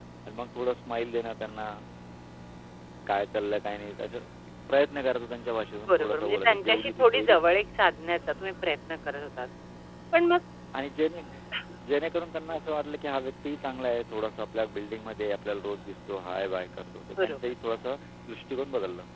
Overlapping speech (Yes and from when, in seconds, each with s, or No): Yes, from 5.9 s